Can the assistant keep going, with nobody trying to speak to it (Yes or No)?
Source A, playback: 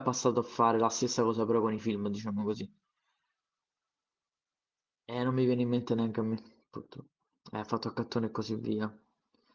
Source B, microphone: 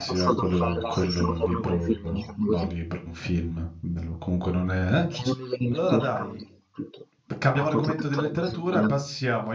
No